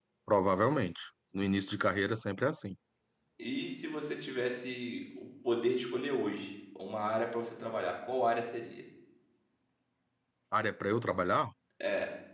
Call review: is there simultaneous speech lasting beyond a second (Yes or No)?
No